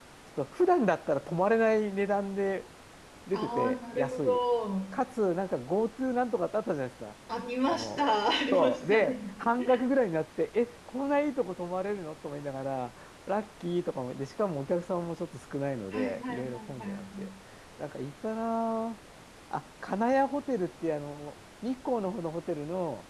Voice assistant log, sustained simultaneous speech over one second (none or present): present